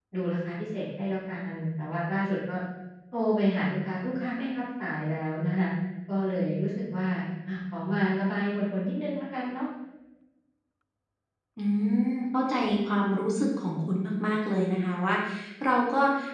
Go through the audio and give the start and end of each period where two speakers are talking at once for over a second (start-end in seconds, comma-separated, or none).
none